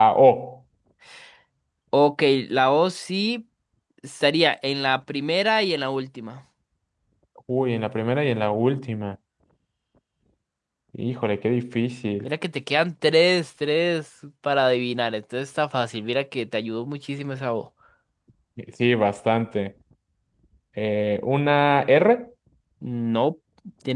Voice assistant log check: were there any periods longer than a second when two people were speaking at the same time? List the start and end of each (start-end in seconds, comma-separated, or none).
none